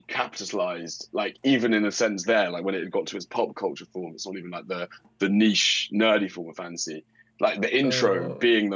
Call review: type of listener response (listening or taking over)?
listening